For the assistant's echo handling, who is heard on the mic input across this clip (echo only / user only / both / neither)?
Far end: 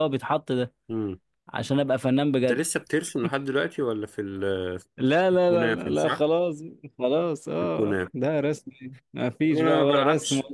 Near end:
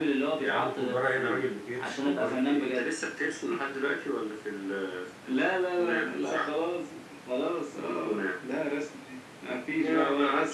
both